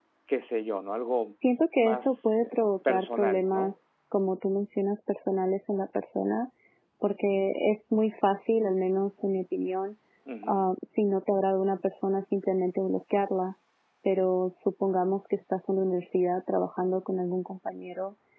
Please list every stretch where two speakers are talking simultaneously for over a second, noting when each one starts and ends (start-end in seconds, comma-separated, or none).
1.8-3.7